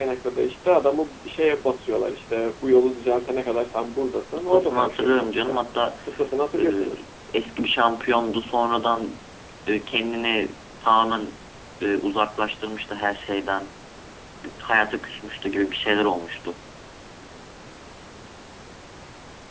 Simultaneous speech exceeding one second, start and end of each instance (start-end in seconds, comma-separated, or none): 4.3-5.6